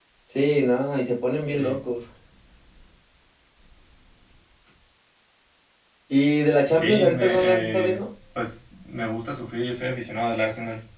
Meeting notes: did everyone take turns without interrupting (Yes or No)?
No